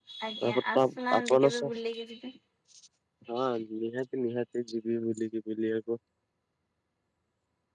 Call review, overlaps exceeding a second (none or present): present